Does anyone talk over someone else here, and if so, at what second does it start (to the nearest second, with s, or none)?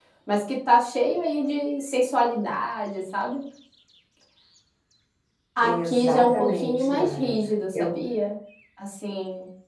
6 s